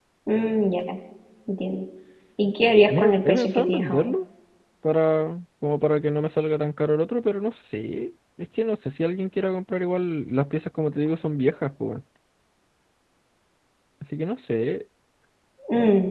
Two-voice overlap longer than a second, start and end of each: 2.9-4.1

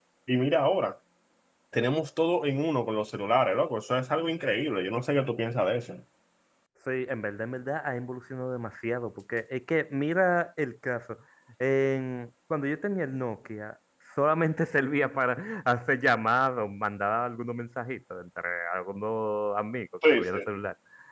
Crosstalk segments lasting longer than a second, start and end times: none

